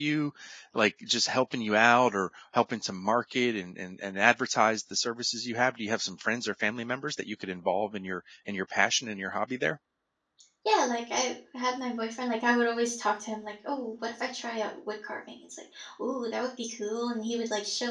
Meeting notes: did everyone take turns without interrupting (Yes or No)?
Yes